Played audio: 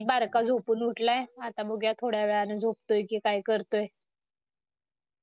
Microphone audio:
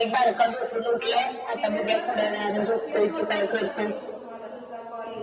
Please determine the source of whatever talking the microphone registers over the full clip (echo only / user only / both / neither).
both